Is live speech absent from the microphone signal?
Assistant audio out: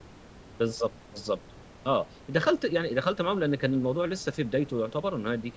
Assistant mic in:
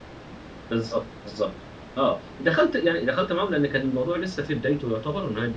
Yes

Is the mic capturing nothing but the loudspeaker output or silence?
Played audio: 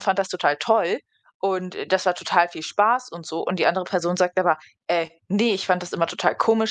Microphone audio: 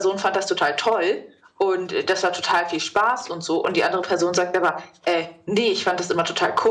Yes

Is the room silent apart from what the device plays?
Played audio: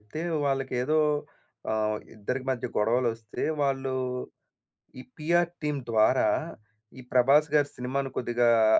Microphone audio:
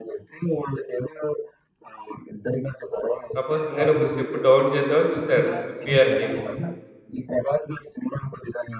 No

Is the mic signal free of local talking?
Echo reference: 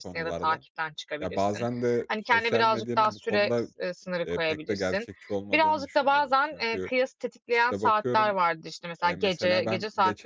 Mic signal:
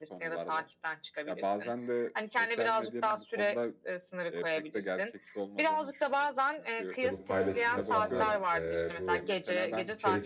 No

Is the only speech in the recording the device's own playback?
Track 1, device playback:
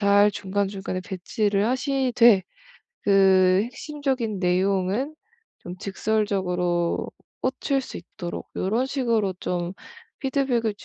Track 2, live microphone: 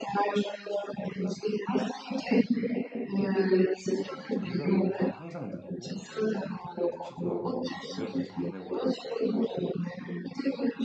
No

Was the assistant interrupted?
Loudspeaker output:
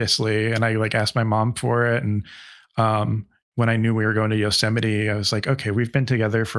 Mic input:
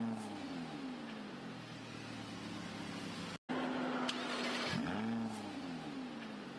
No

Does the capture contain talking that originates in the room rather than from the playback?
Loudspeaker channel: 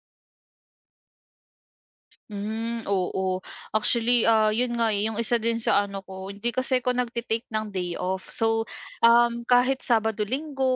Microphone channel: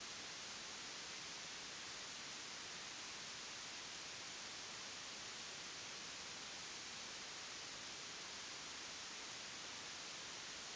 No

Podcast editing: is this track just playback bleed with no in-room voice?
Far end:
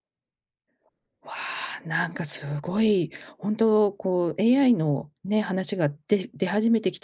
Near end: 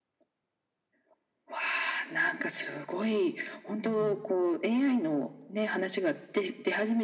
No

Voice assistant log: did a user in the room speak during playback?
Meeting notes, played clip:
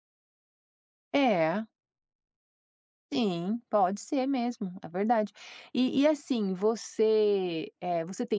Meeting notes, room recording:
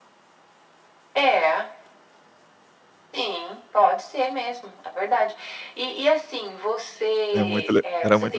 Yes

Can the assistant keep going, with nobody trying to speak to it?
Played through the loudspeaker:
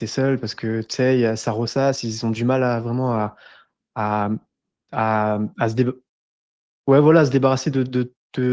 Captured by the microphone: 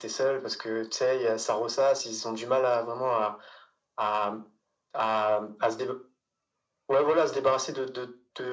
Yes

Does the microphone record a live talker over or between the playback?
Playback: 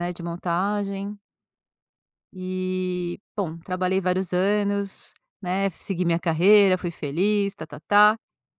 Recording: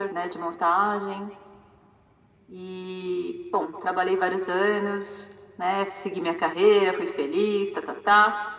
No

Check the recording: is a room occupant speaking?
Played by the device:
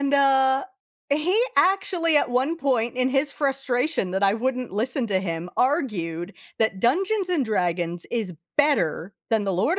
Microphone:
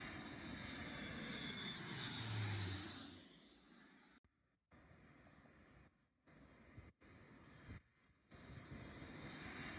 No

